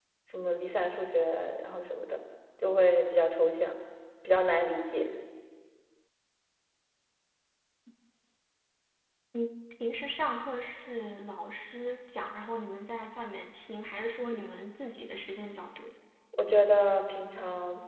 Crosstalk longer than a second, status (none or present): none